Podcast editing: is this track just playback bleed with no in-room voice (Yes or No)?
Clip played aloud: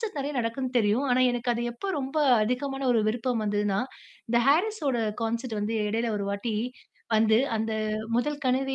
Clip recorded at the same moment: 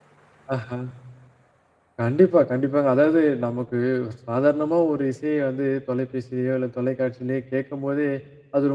No